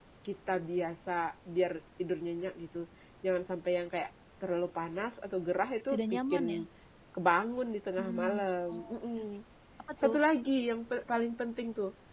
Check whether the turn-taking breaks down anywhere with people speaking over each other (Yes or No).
Yes